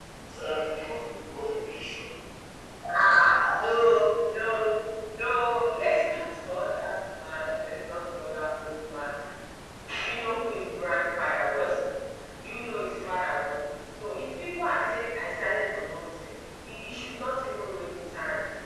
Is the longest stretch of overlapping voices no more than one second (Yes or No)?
Yes